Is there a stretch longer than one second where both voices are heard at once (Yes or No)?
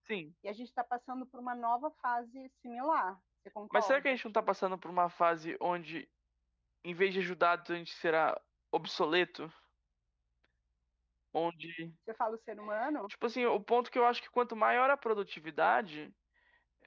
No